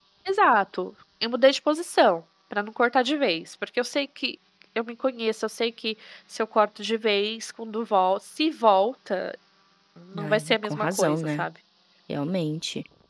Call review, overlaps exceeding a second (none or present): present